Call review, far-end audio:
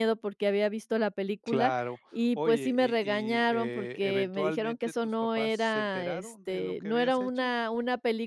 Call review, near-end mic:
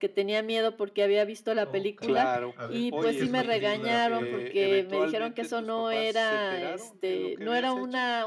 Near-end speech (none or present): present